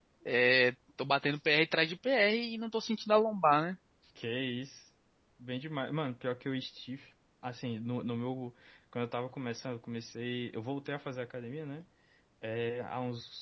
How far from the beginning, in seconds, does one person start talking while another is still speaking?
none

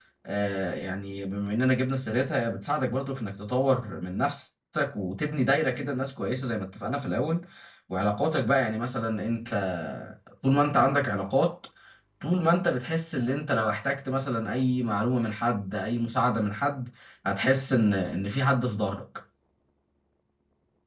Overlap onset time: none

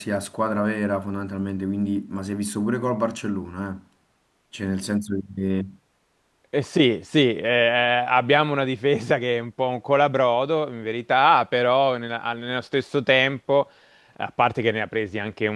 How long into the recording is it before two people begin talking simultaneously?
none

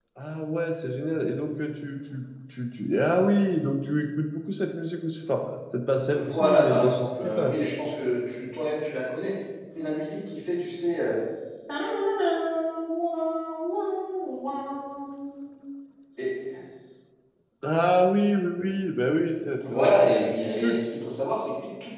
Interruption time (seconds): 6 s

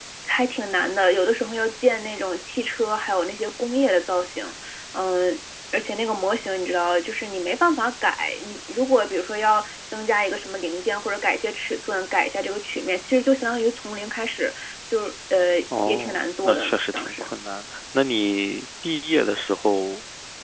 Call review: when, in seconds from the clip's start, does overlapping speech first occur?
16 s

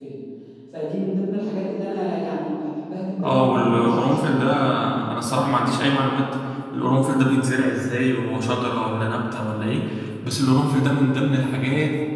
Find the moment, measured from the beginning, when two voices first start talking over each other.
3 s

